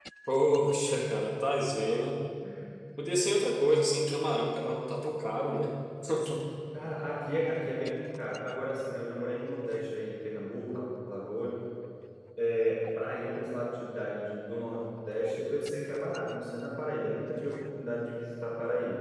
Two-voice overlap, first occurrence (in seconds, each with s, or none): none